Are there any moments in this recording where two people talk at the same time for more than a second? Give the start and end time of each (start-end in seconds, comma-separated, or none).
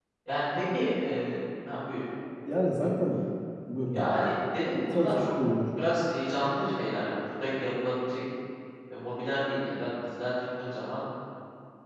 none